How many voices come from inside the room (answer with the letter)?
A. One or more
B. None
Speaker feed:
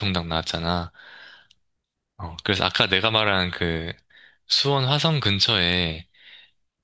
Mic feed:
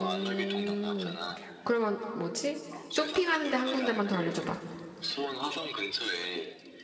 A